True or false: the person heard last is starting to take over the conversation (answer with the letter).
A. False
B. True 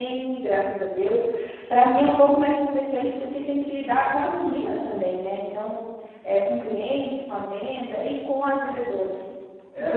B